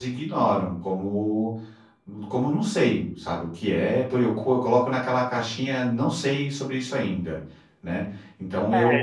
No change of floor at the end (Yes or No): No